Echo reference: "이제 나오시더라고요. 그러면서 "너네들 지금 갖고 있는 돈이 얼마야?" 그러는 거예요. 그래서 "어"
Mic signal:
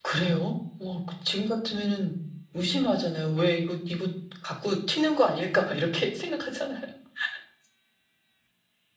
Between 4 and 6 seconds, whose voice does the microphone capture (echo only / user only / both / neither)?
user only